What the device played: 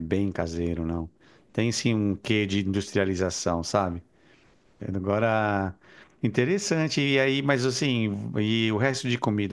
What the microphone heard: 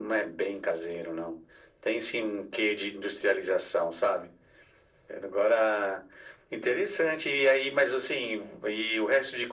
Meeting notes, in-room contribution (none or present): none